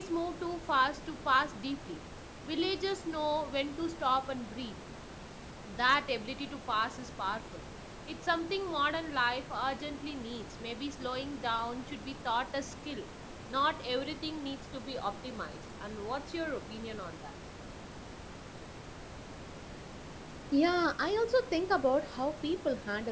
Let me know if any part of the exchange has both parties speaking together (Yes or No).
No